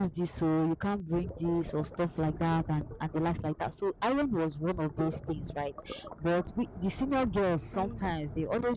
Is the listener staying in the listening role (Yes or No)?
Yes